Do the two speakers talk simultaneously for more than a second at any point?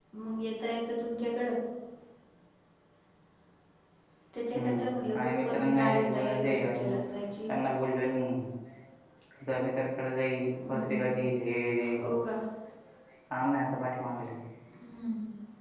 Yes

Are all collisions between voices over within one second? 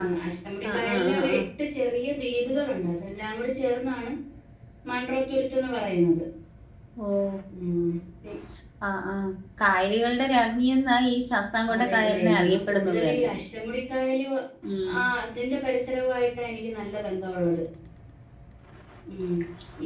No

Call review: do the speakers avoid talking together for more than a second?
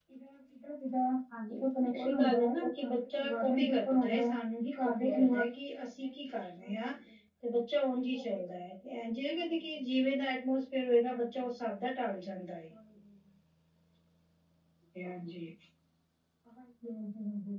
No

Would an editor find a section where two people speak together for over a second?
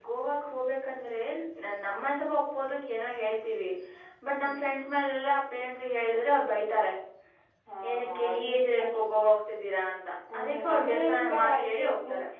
Yes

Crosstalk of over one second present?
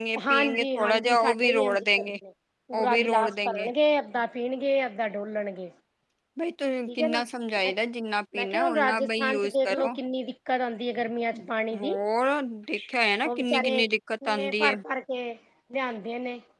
Yes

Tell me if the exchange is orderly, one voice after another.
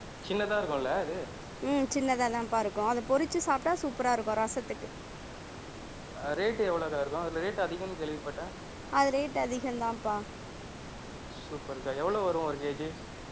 Yes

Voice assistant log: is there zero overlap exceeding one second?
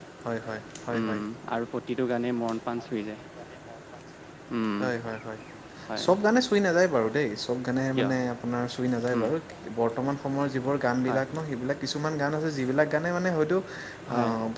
Yes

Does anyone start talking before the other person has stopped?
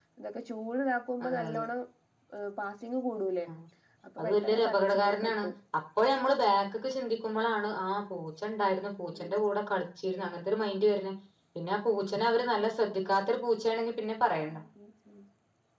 Yes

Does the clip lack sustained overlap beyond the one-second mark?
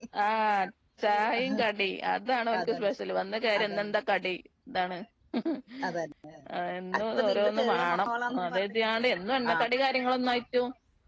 No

